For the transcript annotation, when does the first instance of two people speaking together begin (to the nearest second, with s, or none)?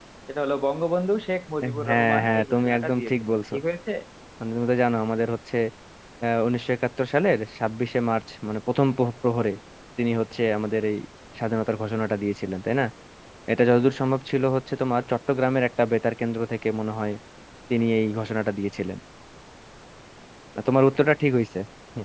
2 s